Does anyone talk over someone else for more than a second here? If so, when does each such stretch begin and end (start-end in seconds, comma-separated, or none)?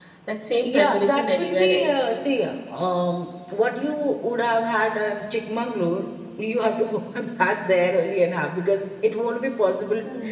0.6-2.2